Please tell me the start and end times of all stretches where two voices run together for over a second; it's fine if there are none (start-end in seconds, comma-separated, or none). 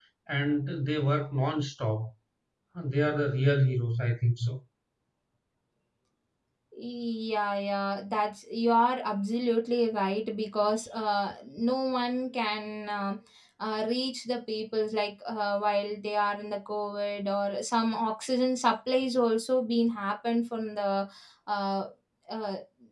none